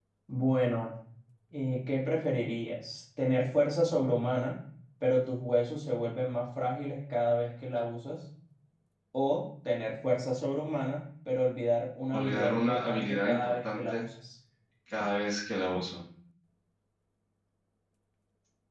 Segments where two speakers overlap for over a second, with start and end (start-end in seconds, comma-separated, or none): 12.1-14.0